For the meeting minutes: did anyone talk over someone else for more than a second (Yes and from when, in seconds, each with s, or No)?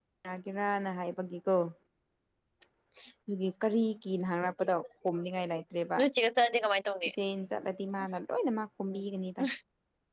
No